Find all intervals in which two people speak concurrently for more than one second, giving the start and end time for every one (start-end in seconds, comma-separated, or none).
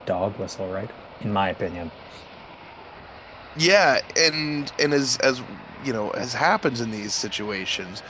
none